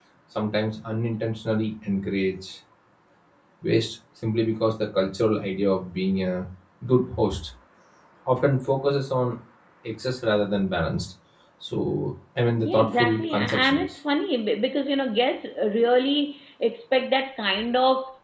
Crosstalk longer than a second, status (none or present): present